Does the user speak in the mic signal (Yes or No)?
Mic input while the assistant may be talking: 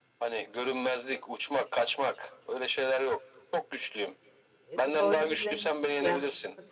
Yes